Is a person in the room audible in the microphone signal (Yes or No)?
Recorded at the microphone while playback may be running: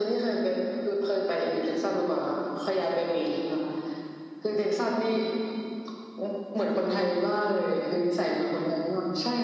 No